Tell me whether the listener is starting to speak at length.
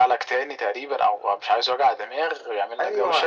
Yes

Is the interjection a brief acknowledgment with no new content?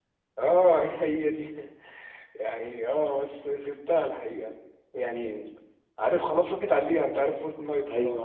No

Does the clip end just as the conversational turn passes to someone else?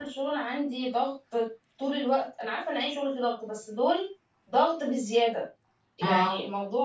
No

